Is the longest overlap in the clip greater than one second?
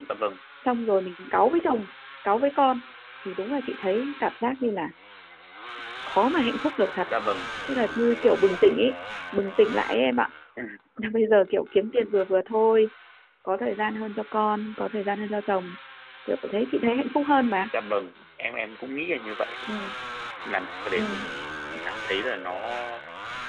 No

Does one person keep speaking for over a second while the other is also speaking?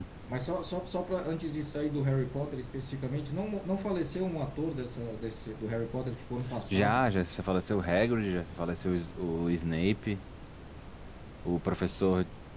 No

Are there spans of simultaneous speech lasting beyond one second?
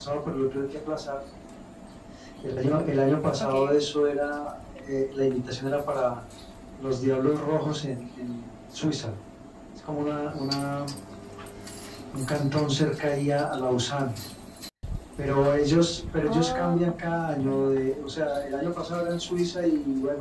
Yes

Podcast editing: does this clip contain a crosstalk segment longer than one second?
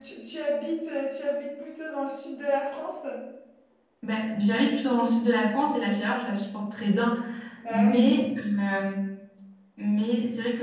No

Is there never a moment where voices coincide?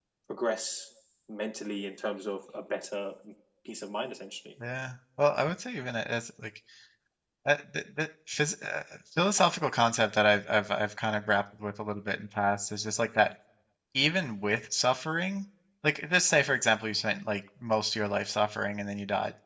Yes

